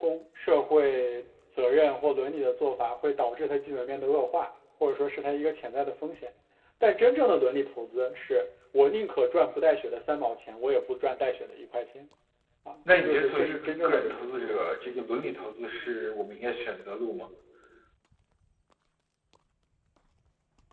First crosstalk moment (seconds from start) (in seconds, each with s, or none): 12.9 s